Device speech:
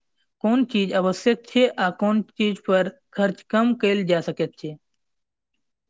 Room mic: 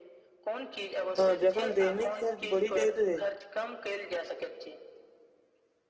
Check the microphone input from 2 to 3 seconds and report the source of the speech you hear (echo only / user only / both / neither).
both